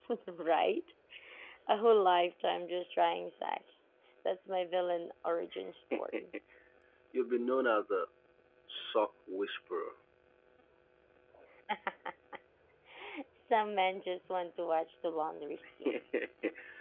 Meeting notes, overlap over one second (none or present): none